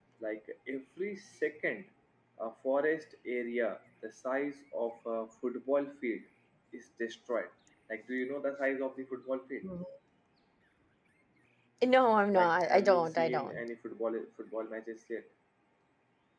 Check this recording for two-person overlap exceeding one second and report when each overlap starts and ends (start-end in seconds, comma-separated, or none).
12.3-13.6